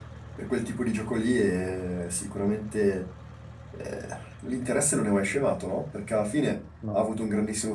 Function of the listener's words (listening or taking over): listening